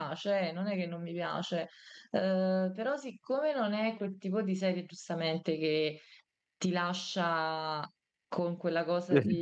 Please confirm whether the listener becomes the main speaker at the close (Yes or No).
No